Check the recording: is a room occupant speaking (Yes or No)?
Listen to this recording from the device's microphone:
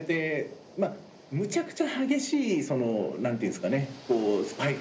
No